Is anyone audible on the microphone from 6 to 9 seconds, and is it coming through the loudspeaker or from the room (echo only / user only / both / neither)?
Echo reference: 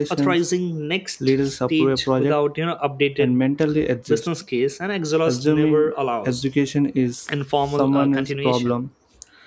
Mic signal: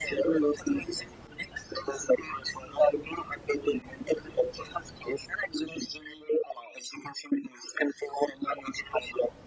echo only